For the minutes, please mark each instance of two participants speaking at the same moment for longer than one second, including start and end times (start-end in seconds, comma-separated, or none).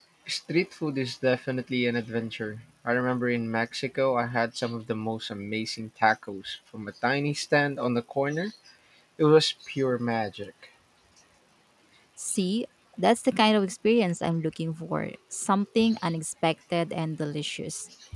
none